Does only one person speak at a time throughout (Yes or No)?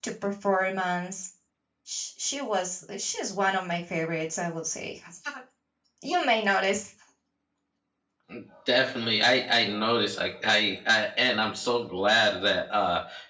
Yes